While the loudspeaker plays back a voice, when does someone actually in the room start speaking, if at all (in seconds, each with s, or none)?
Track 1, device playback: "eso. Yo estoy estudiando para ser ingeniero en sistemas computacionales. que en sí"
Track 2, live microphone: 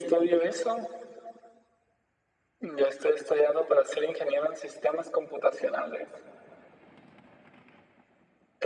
none